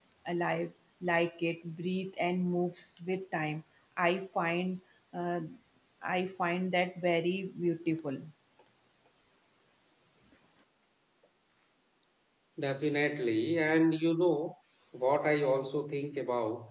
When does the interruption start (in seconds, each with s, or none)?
none